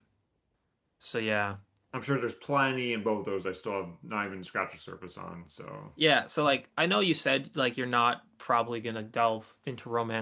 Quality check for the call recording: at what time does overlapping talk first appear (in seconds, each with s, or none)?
none